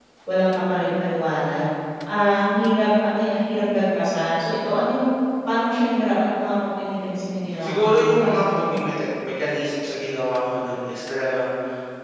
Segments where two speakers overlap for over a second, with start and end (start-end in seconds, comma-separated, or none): 7.6-8.9